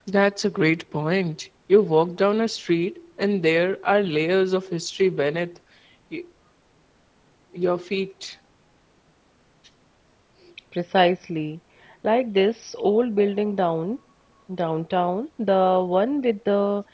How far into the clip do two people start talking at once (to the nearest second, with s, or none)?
none